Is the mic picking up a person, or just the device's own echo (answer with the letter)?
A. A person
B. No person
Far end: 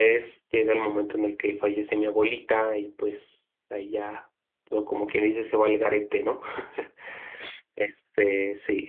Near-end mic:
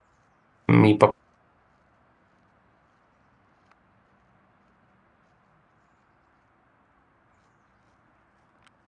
A